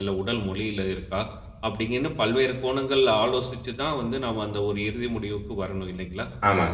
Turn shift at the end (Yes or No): Yes